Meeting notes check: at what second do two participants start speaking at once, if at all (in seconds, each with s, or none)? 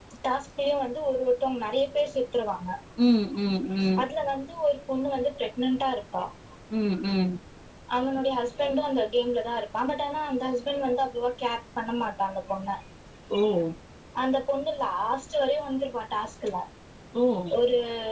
none